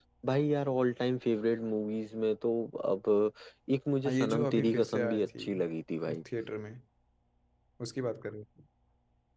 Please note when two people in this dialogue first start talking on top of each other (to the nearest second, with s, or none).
4 s